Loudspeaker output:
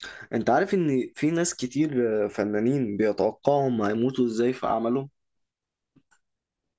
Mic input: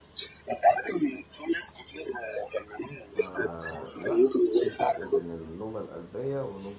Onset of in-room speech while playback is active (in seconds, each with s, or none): 3.0 s